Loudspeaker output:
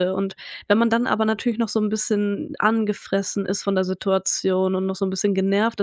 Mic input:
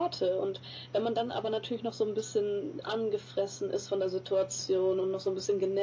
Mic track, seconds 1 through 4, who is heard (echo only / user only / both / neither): echo only